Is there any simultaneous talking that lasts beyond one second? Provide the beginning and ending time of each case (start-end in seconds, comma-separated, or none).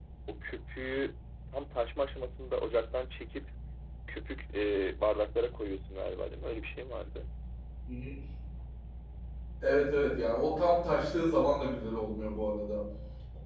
none